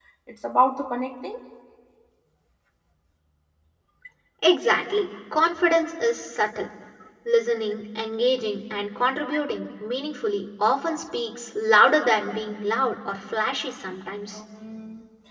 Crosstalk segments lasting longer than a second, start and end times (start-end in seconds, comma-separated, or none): none